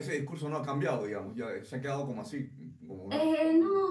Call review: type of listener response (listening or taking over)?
taking over